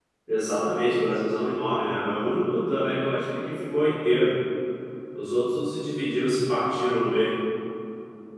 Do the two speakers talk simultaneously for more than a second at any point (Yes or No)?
No